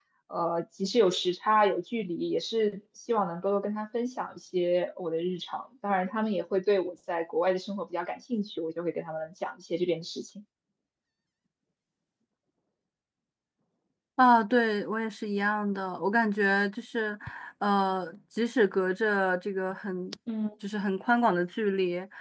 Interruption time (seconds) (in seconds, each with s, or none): none